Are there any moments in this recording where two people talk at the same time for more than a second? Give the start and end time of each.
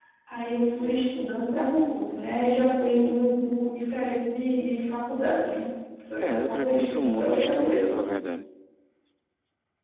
6.2-8.0

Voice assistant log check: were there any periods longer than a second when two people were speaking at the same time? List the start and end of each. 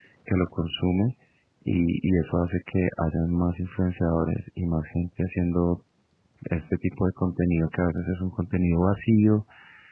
none

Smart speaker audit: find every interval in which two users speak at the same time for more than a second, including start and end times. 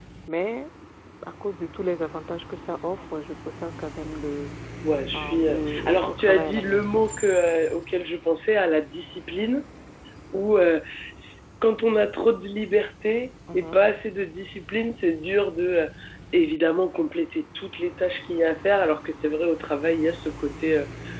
5.1-7.0

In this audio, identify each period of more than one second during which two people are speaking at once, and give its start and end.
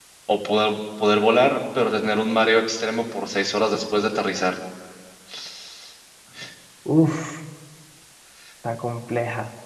none

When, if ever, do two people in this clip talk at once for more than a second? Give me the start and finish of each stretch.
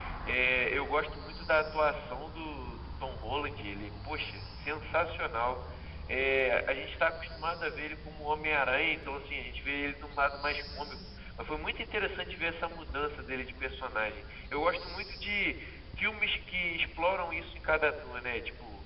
none

